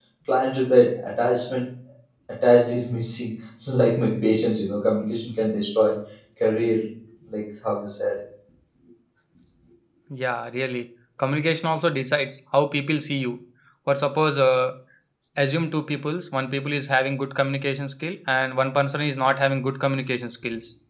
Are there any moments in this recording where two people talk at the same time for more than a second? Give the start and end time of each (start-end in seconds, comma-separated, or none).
none